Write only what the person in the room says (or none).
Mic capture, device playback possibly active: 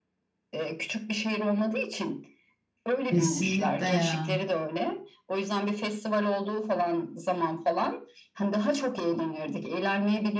Kesinlikle ya.